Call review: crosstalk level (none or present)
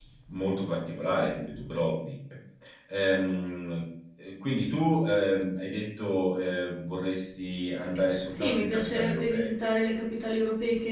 present